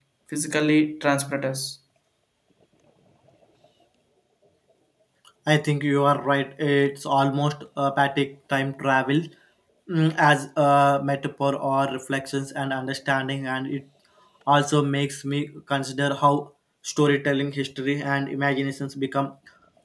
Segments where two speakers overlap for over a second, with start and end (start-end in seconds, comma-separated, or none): none